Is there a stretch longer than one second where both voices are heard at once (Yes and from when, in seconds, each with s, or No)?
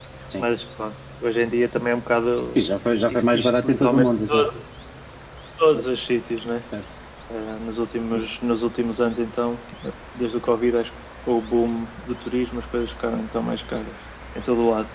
Yes, from 3.1 s